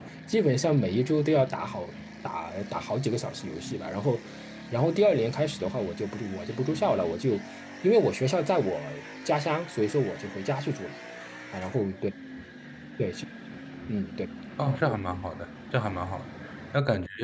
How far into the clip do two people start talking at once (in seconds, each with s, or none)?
none